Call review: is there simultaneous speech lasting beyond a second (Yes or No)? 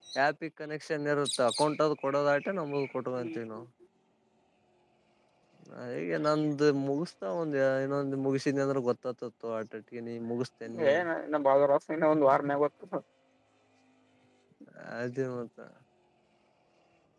No